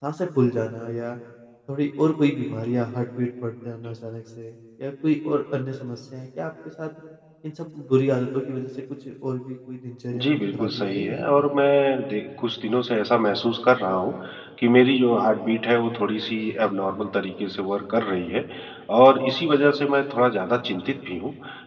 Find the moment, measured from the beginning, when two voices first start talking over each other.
10.1 s

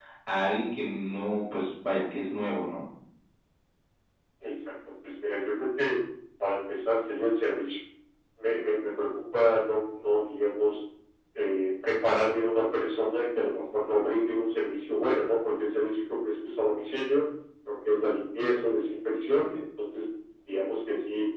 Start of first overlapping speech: none

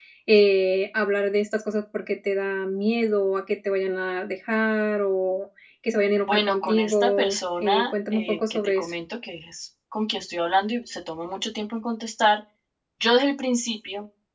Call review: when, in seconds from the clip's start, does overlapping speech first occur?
6.2 s

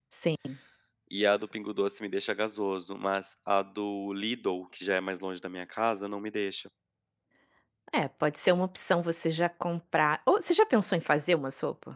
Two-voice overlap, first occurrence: none

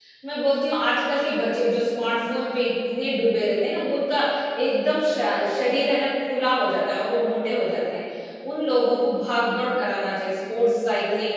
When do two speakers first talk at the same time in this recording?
none

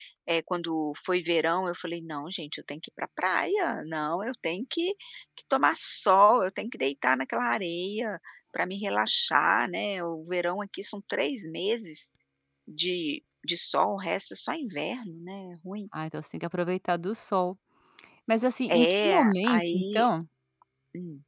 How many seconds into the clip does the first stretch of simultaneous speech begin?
18.7 s

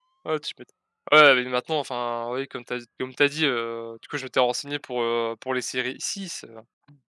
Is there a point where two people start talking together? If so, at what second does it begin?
none

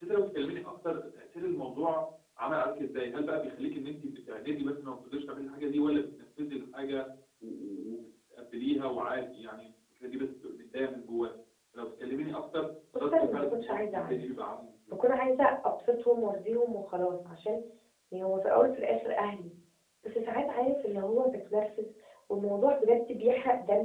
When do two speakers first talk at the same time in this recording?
12.9 s

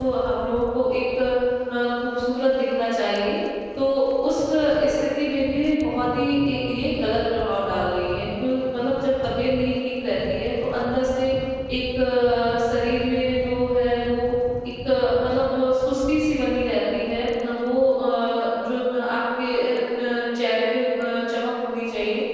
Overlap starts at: none

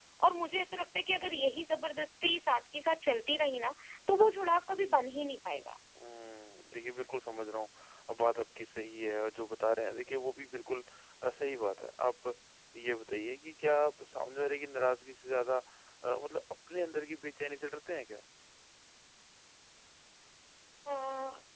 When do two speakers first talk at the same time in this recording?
none

